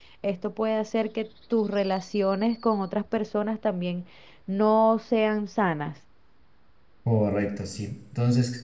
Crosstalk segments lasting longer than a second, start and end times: none

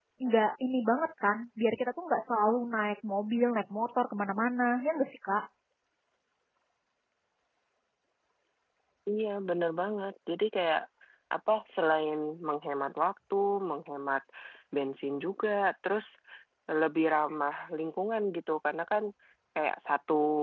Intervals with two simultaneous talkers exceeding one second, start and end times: none

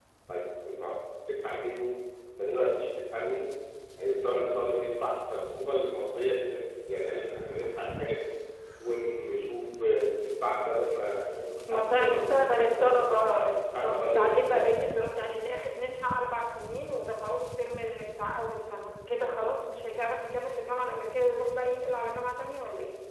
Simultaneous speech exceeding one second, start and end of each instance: 11.7-14.6

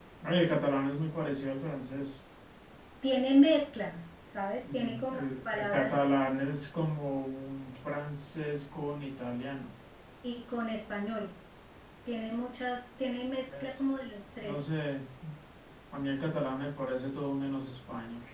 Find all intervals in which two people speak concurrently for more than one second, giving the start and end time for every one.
4.6-6.0

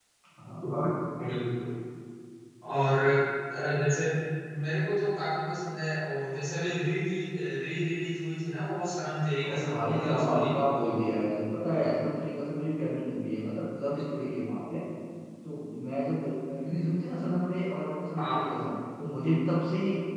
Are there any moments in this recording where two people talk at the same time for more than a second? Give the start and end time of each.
9.5-10.9

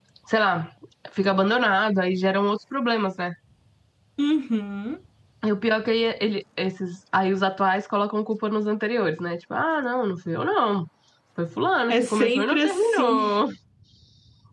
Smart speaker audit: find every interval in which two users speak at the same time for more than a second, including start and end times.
11.9-13.2

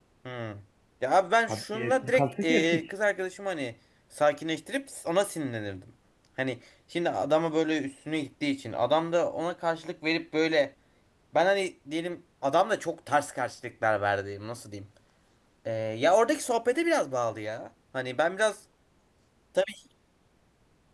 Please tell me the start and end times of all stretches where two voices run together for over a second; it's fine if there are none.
1.5-2.9

